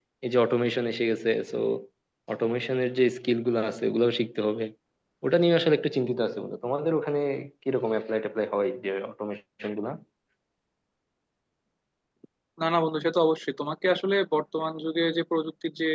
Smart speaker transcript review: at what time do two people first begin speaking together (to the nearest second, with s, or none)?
none